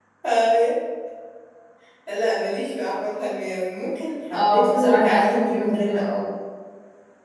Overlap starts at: 4.3 s

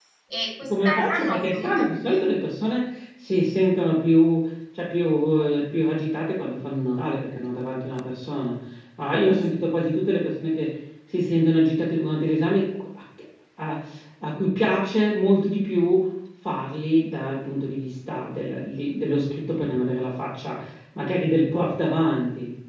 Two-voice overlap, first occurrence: 0.7 s

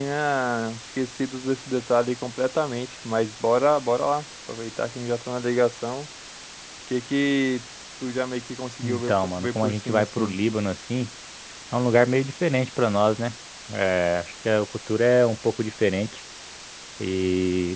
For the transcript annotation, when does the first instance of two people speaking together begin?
8.8 s

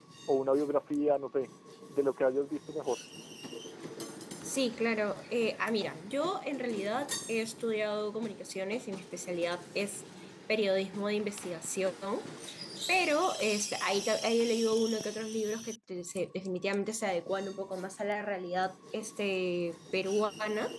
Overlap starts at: none

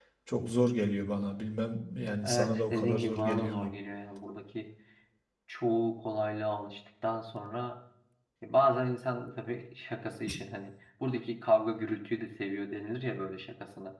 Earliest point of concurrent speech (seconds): 2.2 s

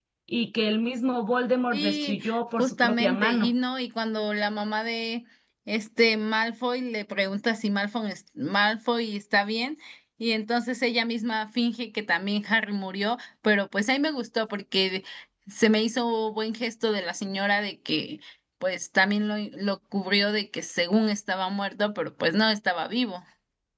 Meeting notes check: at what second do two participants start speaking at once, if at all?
1.7 s

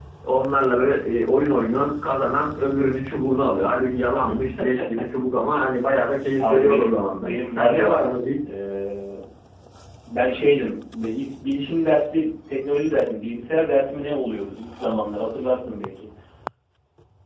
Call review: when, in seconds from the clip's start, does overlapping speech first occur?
6.4 s

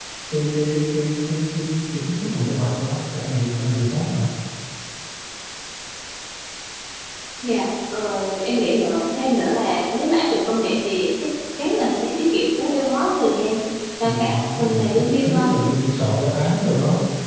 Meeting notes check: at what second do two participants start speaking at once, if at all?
14.0 s

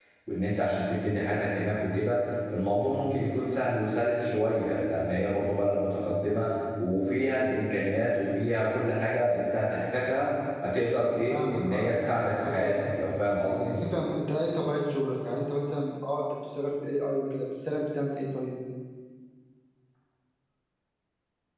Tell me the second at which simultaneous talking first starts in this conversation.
11.3 s

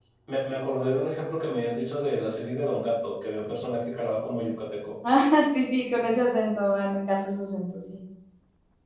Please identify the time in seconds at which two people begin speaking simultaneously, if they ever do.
none

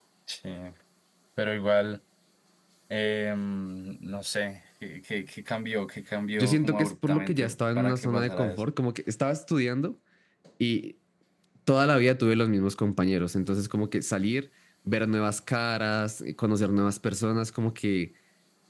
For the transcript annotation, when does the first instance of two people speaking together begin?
6.3 s

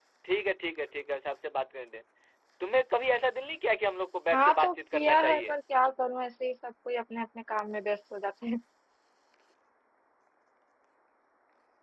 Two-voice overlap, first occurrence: 4.3 s

